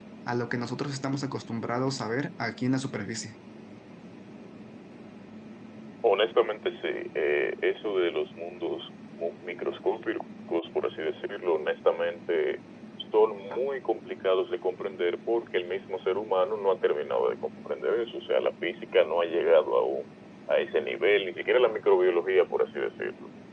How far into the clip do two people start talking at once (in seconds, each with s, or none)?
none